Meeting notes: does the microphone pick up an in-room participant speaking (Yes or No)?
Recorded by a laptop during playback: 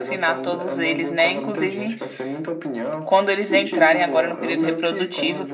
Yes